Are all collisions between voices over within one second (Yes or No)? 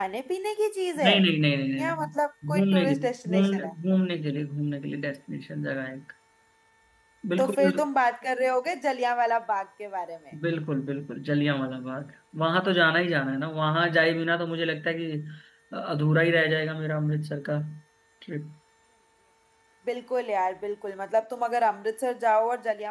No